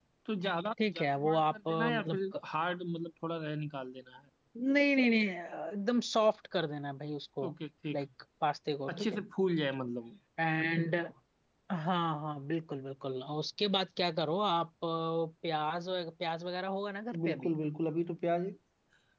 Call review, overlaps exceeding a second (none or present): present